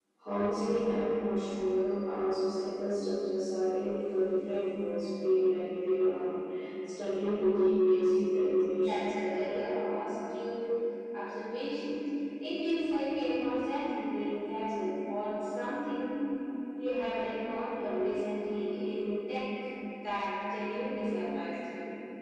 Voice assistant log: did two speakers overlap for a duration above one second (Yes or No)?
No